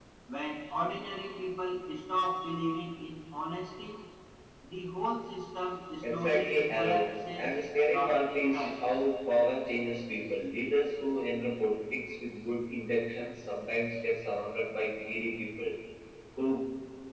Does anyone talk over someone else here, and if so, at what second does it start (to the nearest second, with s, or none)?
6 s